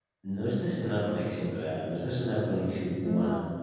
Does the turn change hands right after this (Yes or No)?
No